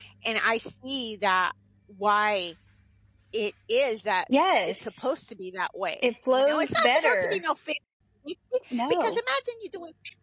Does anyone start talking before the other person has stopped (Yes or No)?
Yes